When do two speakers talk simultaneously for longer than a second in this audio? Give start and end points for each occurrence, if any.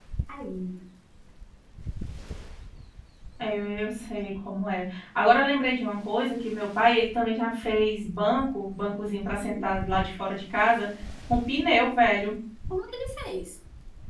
none

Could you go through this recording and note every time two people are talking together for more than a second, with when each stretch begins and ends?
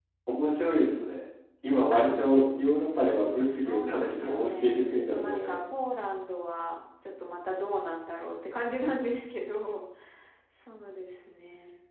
3.6-5.6

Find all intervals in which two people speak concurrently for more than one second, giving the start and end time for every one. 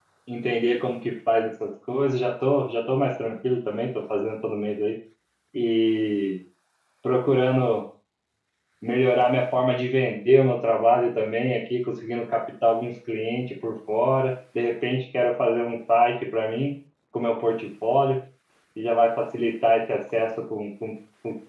none

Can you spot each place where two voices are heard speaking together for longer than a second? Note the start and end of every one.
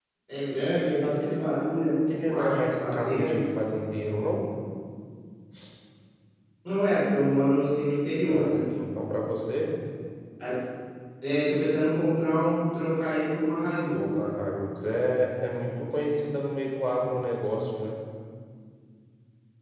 2.1-3.4

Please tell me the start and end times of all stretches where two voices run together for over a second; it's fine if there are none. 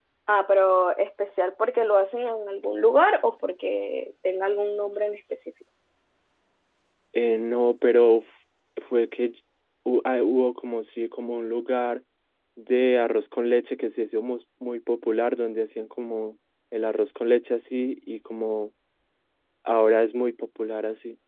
none

